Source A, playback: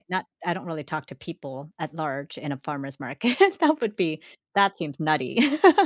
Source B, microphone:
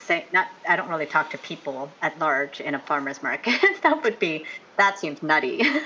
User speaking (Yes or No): No